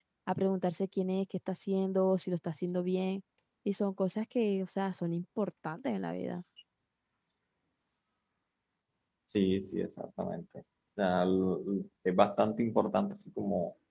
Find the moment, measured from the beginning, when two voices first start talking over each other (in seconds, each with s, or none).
none